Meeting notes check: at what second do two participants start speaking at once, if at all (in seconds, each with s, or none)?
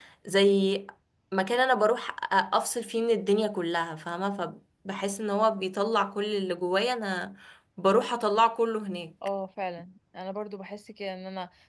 none